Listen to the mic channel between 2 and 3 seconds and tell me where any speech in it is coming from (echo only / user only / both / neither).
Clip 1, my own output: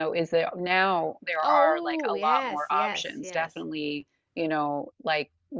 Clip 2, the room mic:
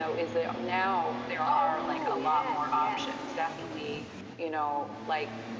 echo only